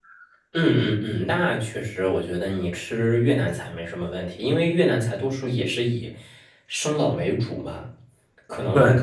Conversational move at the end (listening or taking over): listening